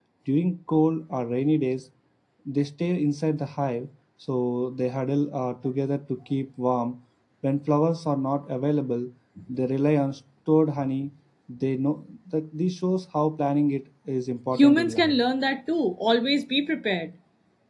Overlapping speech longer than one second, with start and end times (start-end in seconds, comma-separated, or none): none